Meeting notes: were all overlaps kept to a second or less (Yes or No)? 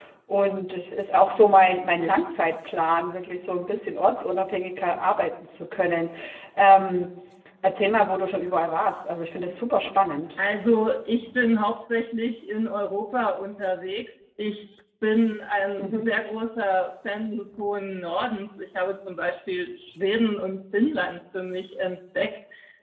Yes